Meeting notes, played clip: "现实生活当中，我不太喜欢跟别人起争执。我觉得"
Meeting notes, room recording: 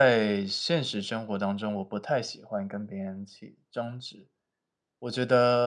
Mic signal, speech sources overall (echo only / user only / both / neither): echo only